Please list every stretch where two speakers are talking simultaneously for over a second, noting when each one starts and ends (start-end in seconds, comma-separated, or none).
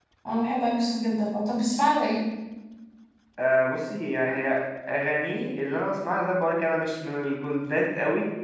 none